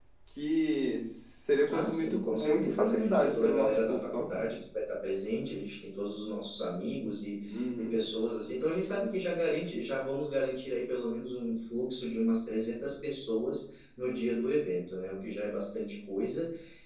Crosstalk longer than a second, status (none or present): present